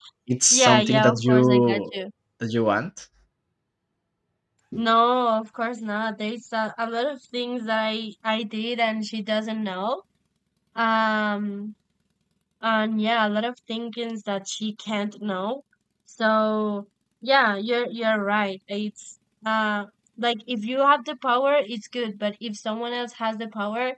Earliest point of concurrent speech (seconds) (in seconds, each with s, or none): 0.5 s